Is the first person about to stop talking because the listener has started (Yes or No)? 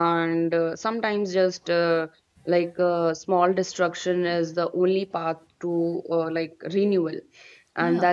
No